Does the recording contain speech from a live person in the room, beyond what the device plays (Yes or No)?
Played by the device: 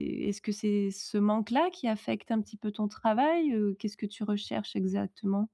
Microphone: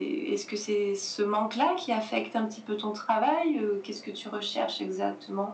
No